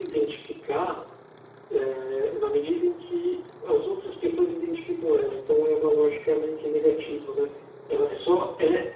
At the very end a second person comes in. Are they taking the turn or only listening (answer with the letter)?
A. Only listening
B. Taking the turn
A